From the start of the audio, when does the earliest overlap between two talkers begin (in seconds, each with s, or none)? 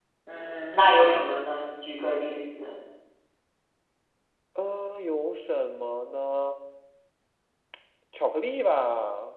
none